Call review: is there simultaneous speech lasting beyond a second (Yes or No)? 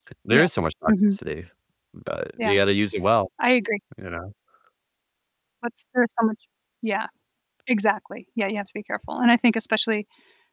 No